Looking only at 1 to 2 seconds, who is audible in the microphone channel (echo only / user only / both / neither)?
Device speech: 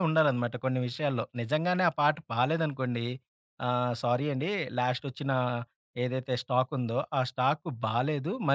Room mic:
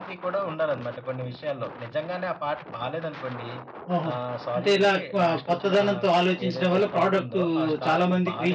echo only